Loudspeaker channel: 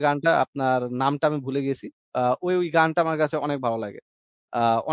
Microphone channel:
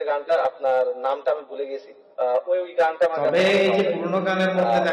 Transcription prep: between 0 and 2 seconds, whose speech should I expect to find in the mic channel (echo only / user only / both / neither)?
echo only